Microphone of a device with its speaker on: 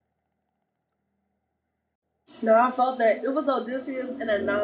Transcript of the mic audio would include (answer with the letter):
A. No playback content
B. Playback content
A